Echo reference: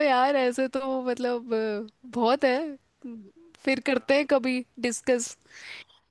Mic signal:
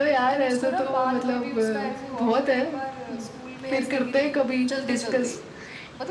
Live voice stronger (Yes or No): No